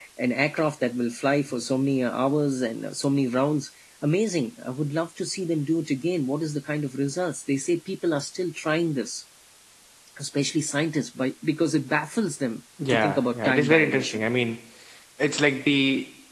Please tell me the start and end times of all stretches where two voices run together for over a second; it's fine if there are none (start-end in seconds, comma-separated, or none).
12.8-14.2